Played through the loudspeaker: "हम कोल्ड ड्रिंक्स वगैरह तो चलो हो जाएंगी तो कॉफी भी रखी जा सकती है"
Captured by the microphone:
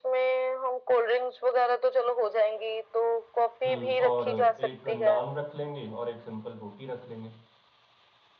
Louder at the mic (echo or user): echo